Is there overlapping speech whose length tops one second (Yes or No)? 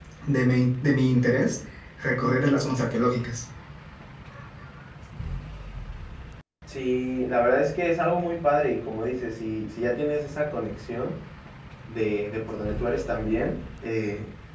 No